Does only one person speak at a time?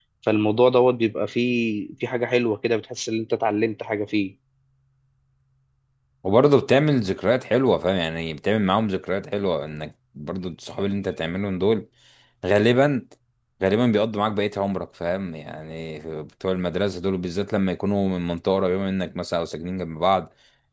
Yes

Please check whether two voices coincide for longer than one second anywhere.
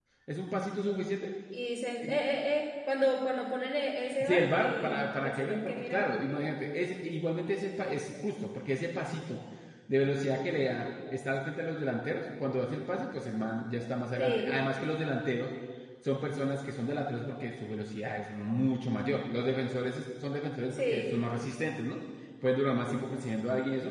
Yes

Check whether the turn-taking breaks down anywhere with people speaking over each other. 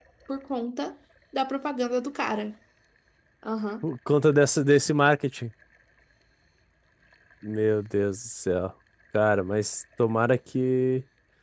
No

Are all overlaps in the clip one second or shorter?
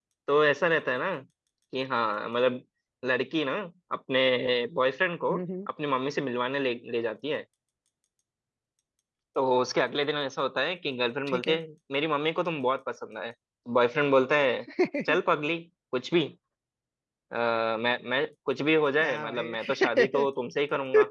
No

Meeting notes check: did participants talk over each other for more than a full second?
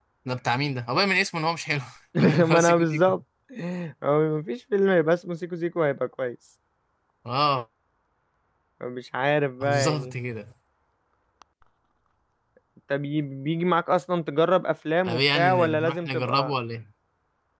Yes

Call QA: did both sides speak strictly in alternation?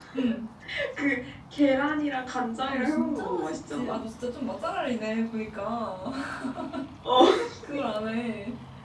No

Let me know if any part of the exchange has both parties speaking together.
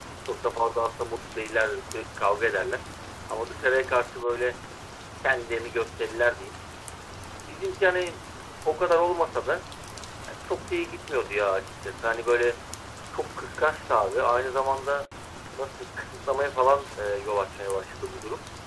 No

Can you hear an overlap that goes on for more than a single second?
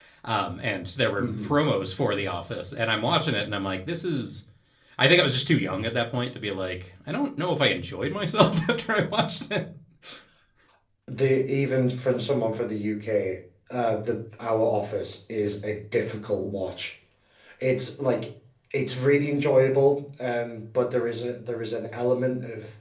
No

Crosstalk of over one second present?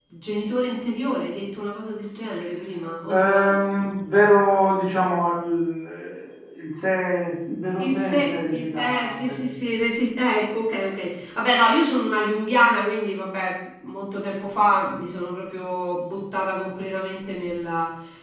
Yes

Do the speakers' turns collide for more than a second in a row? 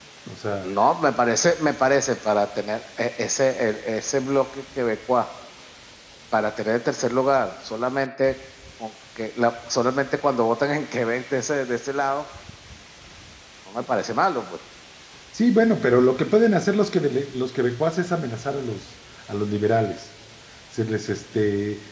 No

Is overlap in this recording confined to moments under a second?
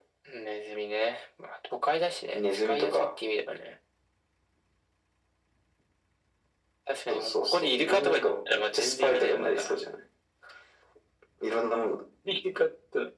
No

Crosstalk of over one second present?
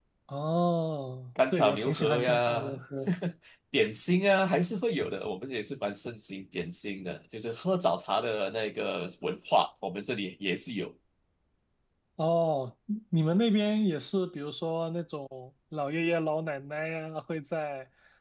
Yes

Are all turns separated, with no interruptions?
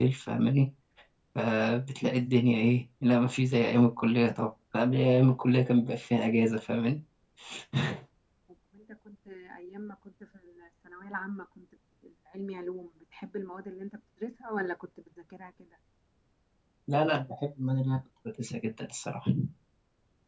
Yes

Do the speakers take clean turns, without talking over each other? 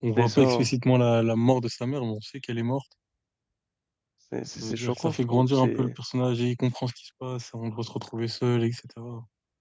No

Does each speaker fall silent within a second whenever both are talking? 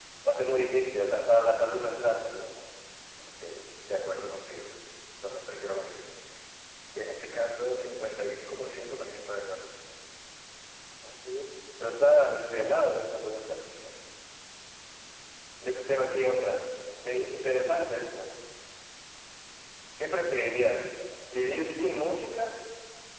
Yes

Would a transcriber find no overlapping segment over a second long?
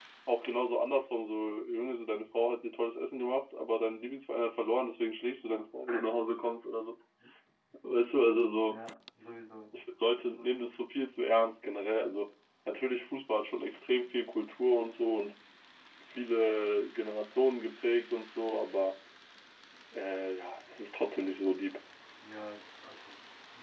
Yes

